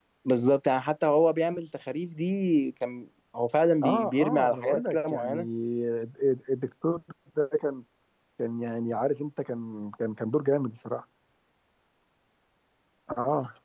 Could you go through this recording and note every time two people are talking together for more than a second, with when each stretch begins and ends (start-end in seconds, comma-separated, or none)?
3.8-5.4